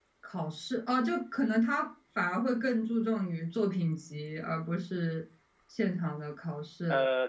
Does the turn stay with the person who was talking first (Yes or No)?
No